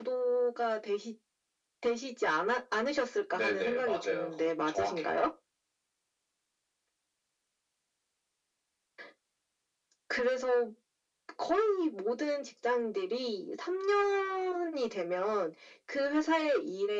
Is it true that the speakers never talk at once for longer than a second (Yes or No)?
No